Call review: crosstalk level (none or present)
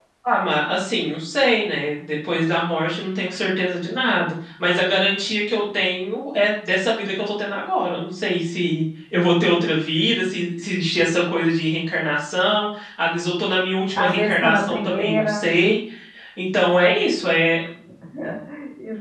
present